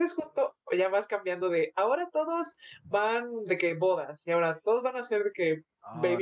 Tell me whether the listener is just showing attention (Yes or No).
No